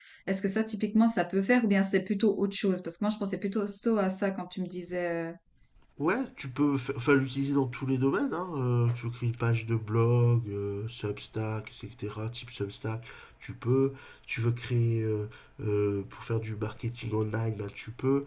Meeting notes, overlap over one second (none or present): none